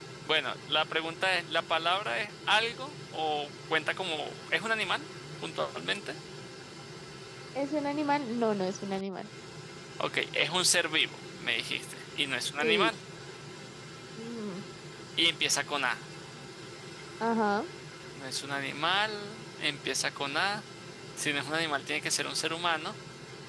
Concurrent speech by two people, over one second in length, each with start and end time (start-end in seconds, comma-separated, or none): none